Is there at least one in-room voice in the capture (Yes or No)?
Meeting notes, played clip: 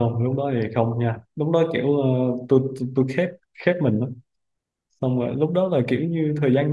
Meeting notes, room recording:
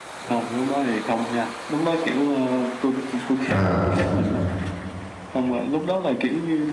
Yes